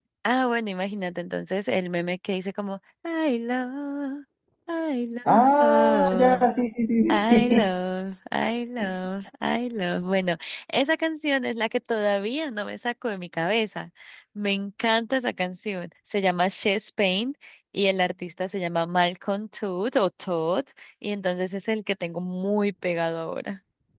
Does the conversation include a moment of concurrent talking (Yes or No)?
Yes